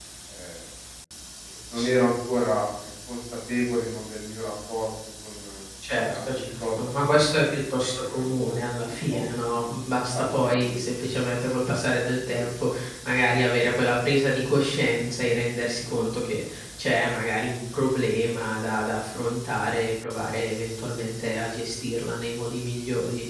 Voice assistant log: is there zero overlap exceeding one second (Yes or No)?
No